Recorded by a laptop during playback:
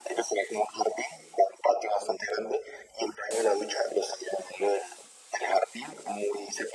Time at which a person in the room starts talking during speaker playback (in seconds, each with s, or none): none